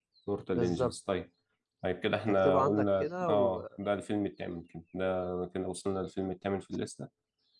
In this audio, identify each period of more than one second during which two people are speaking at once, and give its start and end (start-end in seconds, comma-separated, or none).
2.3-3.6